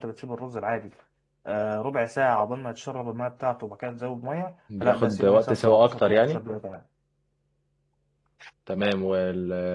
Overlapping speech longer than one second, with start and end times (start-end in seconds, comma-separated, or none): 4.8-6.4